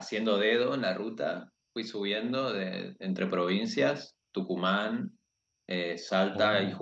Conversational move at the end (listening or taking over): listening